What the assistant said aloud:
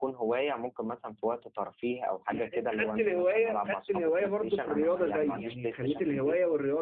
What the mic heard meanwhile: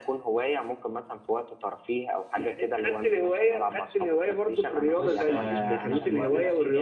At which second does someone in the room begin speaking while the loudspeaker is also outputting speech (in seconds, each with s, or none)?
5.0 s